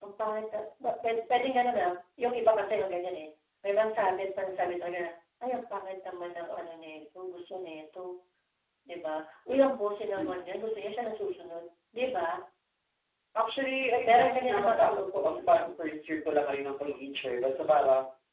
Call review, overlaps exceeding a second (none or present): present